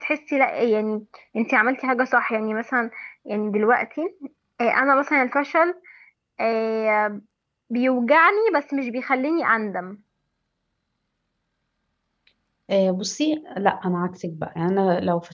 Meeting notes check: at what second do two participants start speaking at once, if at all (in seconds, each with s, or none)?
none